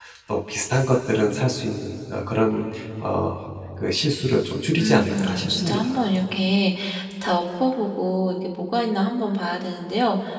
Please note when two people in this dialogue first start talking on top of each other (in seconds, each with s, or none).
4.8 s